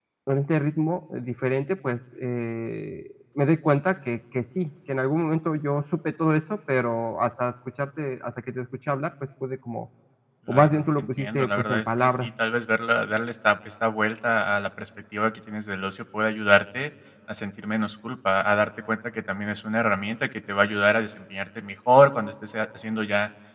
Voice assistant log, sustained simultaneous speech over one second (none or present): present